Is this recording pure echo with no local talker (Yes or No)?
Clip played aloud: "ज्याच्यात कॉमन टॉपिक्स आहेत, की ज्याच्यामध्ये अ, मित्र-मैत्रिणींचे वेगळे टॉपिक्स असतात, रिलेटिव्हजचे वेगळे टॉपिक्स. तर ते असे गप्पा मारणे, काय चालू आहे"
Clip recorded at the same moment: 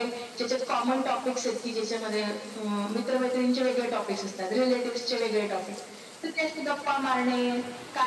Yes